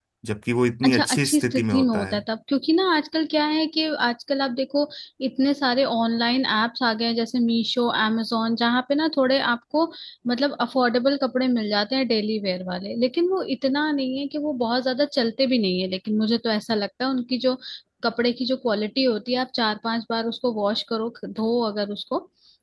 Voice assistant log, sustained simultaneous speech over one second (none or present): present